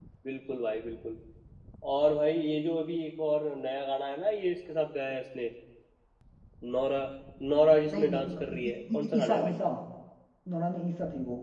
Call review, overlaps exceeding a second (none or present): present